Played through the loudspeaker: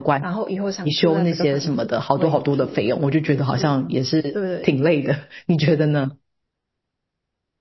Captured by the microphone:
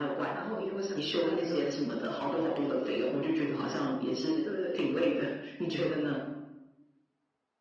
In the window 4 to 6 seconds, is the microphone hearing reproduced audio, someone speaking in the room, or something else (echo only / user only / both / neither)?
echo only